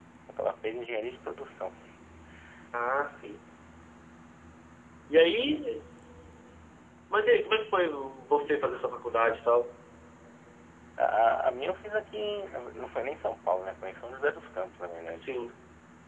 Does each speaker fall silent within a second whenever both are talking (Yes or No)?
Yes